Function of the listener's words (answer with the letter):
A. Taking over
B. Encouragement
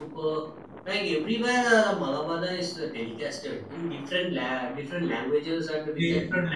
A